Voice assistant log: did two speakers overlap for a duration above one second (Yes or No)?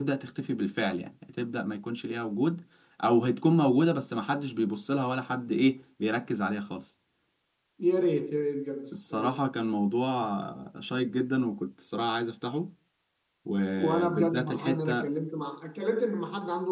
Yes